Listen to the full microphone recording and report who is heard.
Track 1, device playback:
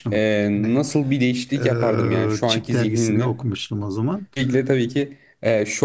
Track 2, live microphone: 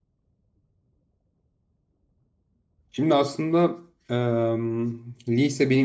user only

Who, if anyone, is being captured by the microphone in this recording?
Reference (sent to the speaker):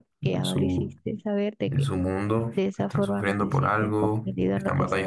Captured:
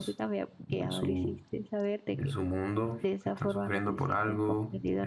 echo only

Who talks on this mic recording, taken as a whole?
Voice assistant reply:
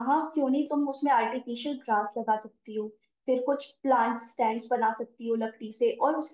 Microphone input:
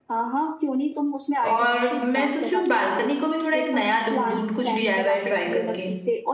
both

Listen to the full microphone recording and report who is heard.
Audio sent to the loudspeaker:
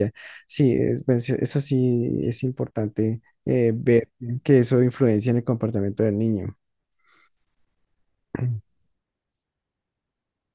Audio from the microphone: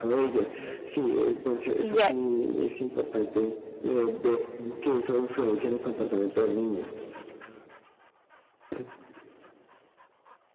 both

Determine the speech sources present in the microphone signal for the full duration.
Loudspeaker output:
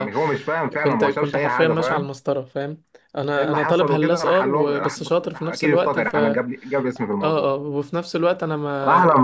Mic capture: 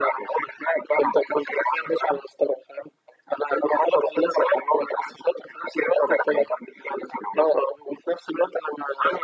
echo only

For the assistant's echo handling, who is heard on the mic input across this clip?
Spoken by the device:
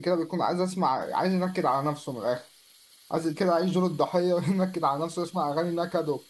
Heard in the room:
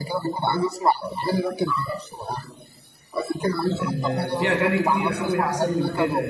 both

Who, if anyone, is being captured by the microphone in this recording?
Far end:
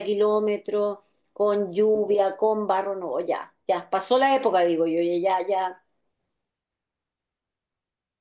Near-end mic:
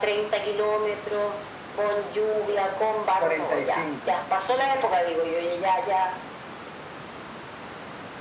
both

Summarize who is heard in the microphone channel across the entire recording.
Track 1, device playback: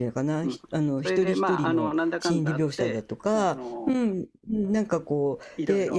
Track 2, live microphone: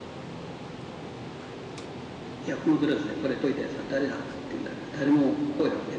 user only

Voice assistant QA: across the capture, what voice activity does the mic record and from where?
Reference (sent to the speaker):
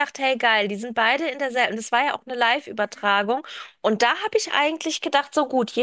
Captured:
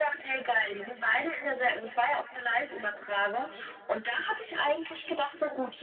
echo only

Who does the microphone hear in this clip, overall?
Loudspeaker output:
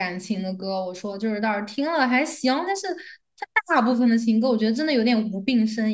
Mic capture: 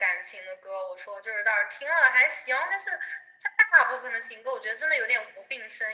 echo only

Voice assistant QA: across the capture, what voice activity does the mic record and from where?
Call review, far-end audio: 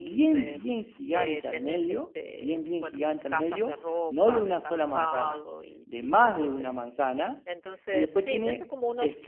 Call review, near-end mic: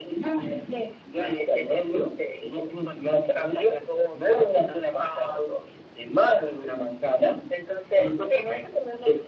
echo only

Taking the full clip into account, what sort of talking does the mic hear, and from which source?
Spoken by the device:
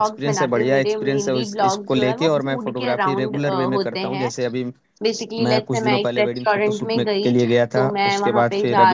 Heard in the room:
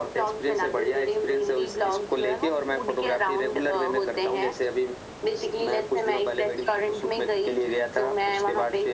echo only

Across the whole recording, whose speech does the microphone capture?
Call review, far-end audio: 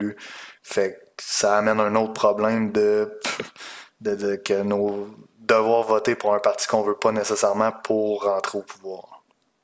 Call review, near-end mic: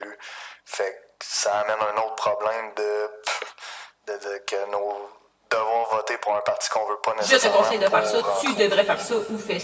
both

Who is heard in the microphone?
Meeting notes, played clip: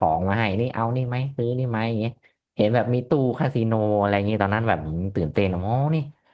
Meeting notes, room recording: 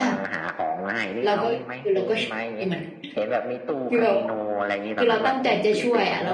both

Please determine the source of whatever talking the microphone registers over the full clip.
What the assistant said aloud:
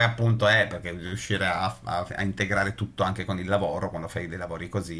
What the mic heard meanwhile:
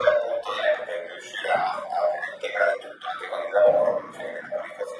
echo only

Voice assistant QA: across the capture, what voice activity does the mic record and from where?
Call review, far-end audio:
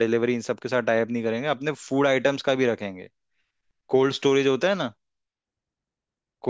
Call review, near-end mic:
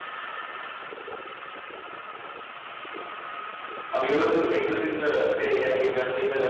user only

